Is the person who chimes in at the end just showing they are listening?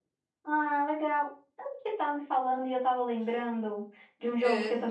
Yes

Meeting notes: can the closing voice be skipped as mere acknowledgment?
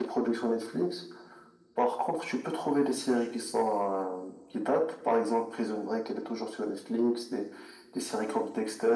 Yes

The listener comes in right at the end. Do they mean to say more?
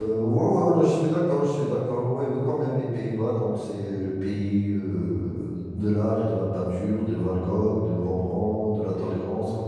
No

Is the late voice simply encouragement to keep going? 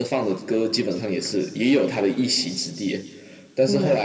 Yes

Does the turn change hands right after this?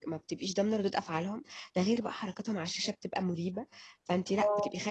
No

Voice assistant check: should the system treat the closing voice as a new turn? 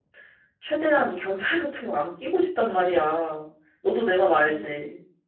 Yes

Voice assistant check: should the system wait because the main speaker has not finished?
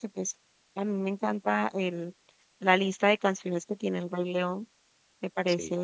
Yes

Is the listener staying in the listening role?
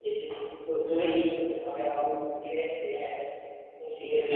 No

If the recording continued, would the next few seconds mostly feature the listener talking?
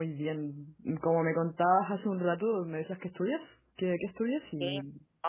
Yes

